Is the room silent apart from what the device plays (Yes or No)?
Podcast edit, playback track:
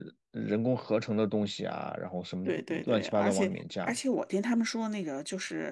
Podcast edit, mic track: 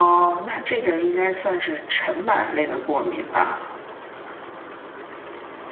No